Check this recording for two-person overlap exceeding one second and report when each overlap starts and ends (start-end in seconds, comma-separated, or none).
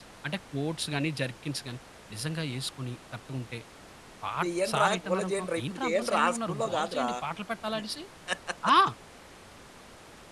4.4-7.1